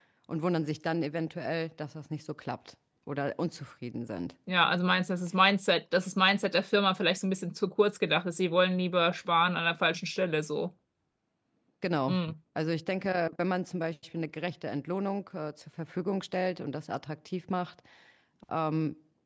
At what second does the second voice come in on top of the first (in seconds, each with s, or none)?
none